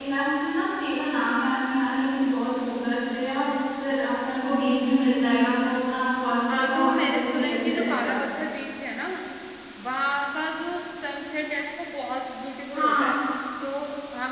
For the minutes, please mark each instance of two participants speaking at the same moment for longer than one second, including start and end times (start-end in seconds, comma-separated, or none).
6.5-8.2